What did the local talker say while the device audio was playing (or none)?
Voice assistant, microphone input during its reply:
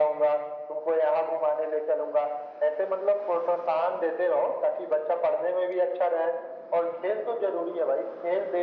none